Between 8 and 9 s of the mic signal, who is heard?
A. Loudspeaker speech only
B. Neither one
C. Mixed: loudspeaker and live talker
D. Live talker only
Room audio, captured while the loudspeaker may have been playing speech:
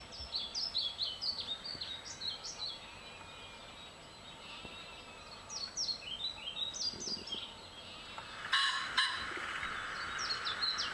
B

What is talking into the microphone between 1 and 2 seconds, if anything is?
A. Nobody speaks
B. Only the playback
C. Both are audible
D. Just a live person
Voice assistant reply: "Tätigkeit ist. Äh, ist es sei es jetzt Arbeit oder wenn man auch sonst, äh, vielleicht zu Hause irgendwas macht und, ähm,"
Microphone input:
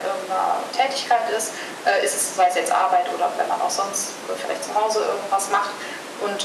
B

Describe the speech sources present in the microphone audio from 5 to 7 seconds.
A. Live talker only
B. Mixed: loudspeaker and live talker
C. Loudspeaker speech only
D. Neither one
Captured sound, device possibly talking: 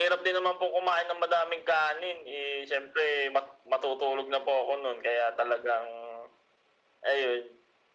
C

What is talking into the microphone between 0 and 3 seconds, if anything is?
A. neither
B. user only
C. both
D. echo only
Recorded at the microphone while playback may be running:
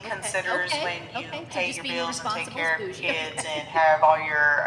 C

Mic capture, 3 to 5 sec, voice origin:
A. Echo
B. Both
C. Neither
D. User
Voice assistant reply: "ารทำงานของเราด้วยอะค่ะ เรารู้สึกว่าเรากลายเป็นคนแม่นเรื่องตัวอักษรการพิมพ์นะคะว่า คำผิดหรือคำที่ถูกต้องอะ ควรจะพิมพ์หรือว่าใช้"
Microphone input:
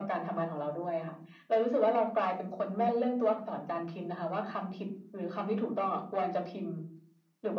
A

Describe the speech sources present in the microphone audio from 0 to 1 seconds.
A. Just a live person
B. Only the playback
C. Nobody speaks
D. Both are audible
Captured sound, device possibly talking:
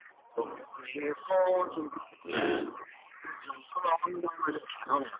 B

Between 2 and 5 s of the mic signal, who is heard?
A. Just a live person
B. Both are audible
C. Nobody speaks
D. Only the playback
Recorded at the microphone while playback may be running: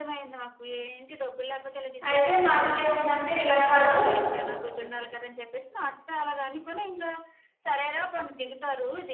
B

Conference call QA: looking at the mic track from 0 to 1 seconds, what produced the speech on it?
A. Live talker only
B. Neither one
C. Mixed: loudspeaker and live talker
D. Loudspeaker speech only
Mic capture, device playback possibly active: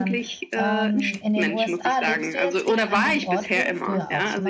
C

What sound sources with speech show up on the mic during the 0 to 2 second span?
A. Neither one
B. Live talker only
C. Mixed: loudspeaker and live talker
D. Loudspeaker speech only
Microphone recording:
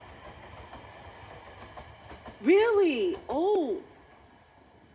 A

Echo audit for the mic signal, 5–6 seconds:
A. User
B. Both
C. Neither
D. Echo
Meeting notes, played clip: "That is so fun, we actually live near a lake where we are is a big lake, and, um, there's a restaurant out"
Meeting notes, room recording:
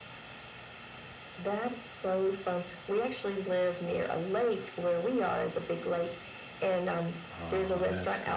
D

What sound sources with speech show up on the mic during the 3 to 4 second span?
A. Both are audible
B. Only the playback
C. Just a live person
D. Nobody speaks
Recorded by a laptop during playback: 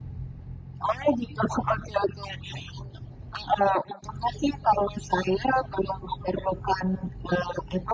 B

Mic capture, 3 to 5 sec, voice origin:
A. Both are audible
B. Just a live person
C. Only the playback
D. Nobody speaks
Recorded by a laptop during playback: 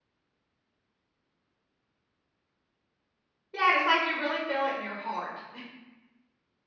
B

